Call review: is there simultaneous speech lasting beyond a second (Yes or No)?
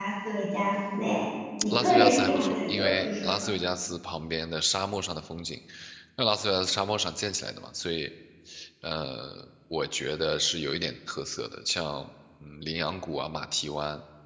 Yes